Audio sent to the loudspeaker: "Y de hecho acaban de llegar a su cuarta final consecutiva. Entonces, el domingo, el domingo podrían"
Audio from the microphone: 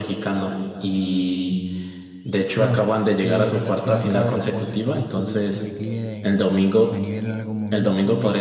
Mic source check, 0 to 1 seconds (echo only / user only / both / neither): echo only